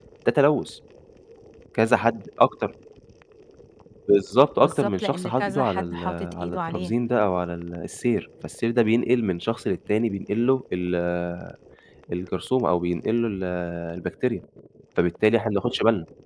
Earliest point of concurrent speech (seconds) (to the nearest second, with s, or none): 5 s